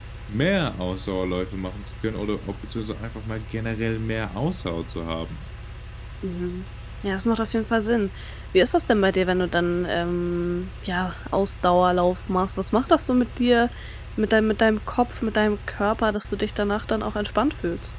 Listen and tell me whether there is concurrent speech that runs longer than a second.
No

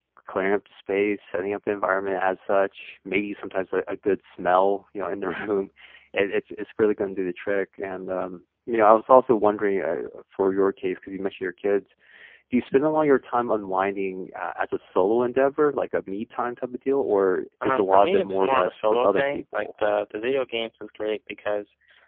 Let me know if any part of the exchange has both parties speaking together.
Yes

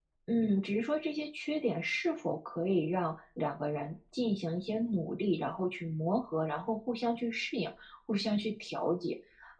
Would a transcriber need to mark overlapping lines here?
No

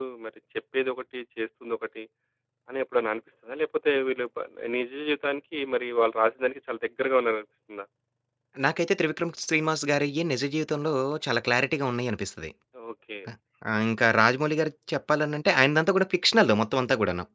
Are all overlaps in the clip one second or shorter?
Yes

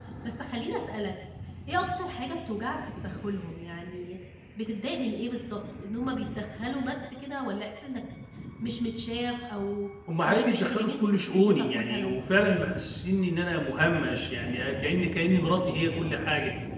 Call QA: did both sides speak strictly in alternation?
No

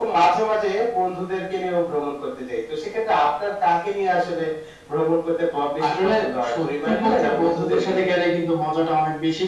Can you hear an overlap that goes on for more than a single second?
Yes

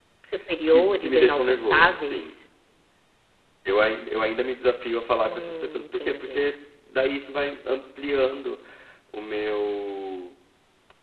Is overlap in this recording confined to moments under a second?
No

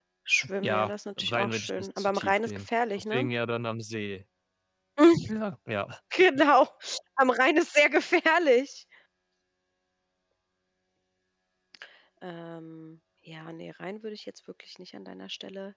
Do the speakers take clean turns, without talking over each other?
No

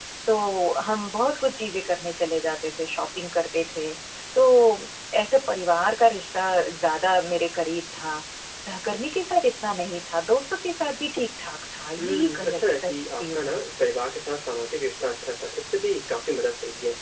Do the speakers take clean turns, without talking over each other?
No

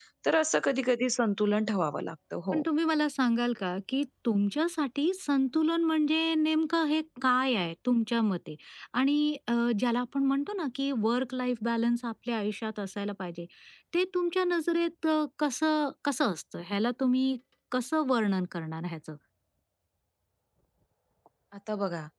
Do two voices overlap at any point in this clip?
No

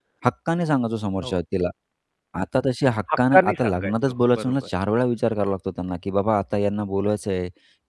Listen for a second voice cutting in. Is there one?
Yes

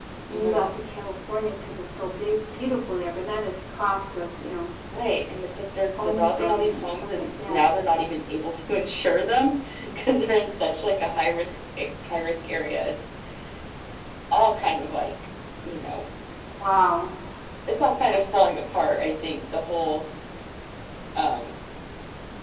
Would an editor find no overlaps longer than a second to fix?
No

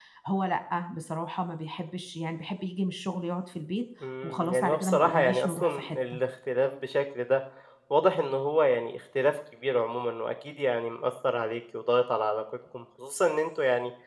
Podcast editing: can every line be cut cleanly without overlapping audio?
No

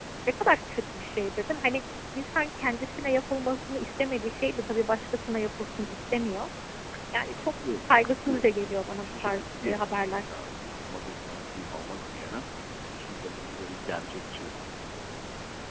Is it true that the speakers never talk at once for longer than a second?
No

